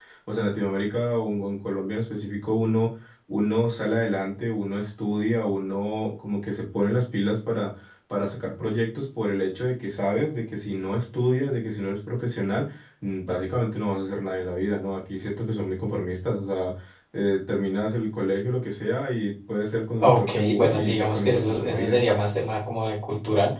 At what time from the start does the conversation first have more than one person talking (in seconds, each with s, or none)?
20.0 s